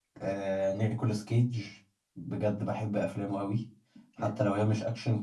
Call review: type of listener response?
listening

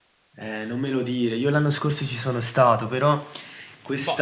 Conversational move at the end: listening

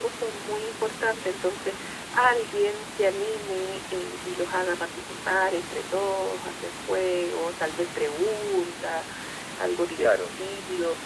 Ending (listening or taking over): listening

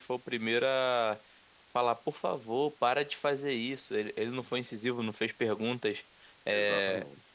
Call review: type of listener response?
listening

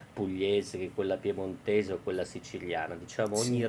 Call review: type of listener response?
listening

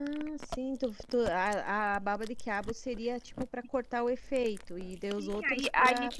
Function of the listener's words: taking over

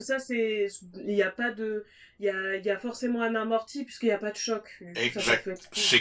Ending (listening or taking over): taking over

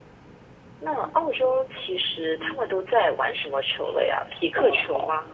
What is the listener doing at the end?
taking over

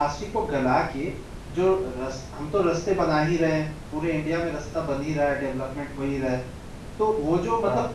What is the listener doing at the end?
listening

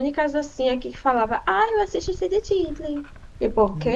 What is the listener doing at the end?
taking over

